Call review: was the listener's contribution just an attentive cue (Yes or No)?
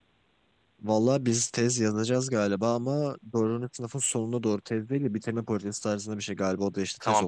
No